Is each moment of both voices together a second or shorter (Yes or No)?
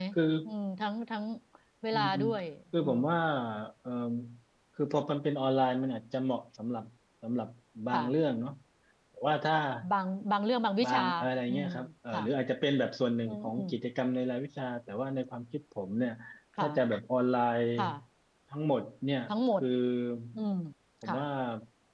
Yes